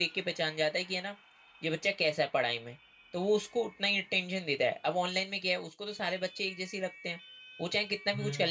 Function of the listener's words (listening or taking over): listening